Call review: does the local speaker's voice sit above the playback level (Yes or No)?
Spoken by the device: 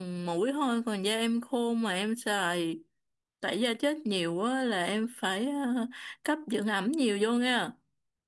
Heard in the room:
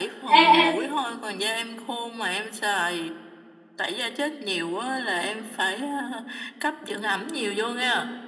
Yes